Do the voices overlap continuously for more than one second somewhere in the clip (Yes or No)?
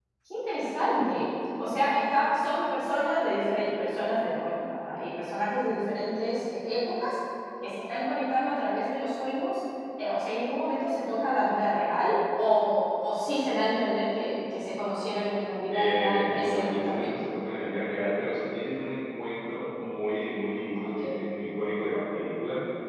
Yes